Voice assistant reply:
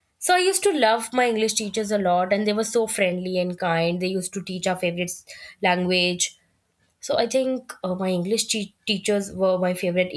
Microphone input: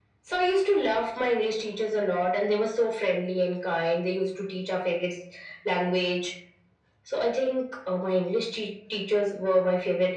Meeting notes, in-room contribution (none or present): none